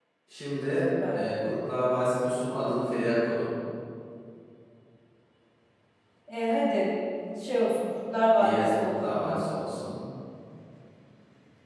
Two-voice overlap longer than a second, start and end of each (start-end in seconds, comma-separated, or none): 8.4-9.6